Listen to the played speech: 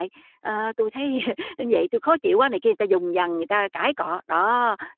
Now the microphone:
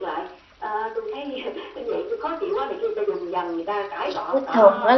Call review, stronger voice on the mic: user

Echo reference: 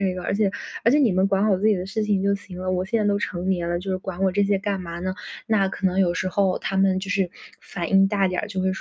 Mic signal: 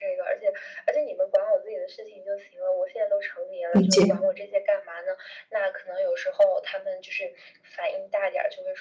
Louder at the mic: user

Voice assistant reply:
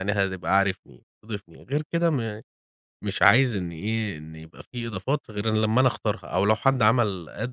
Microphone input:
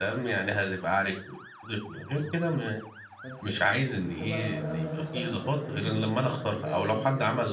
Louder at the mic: echo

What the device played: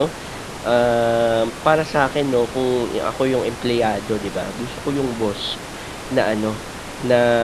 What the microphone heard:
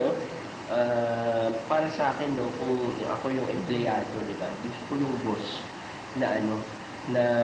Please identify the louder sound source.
echo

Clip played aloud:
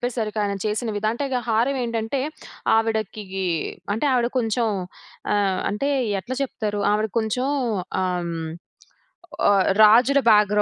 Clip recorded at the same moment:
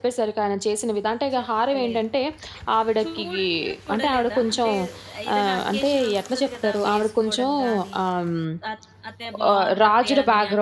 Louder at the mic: echo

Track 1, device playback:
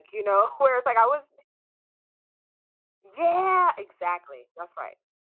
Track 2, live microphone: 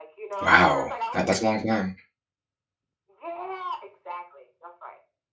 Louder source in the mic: user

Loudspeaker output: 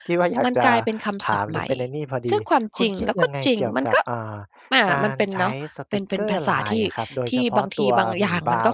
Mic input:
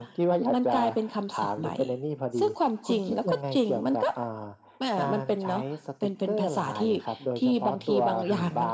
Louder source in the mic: echo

